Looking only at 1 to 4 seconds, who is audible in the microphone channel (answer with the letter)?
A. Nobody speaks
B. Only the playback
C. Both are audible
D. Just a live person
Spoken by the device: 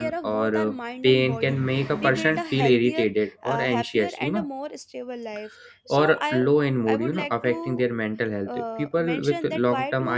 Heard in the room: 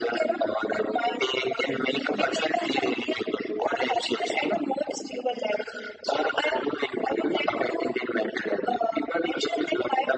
B